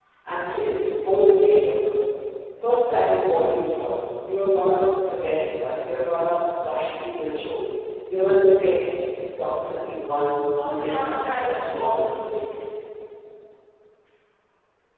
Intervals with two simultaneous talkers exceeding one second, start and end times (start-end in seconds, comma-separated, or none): 10.6-12.2